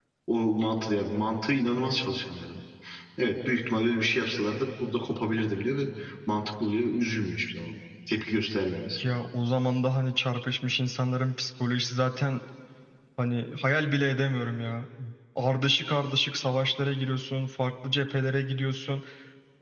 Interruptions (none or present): none